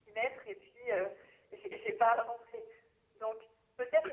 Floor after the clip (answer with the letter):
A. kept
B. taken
A